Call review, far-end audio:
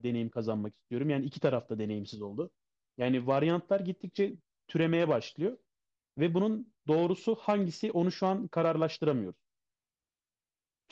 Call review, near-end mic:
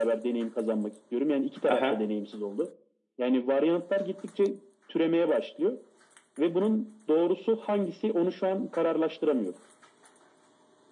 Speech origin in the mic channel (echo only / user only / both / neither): both